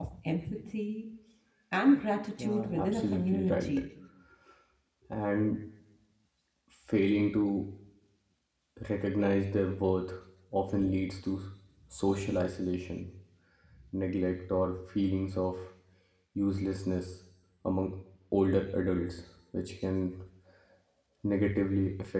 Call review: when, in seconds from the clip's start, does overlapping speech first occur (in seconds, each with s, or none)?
2.4 s